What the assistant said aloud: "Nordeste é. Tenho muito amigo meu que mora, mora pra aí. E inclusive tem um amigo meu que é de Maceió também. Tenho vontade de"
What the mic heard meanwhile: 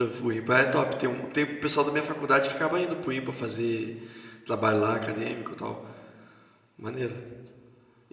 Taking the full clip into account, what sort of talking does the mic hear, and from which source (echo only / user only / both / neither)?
user only